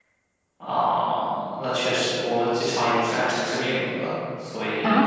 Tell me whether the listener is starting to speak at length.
Yes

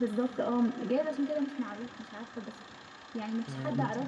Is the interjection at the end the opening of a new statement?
No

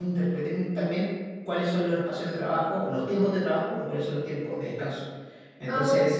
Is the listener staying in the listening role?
Yes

